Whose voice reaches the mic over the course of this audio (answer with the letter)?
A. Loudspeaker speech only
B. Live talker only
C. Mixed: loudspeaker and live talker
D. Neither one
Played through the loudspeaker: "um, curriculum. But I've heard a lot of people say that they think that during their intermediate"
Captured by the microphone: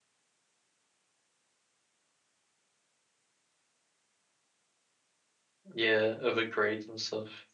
B